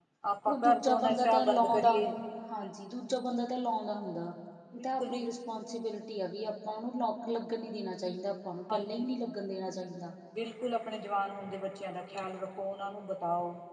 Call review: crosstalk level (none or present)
present